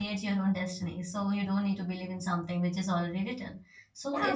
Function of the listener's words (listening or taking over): taking over